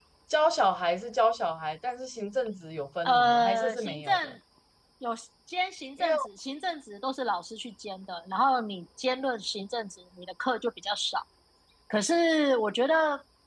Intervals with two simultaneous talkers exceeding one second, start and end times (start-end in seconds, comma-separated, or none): 3.0-4.3